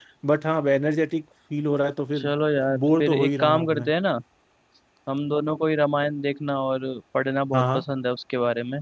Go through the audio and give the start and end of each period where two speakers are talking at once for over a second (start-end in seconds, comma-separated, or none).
2.7-3.9